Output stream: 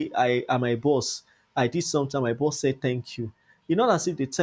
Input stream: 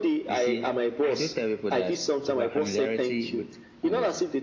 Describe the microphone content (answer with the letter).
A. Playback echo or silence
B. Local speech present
B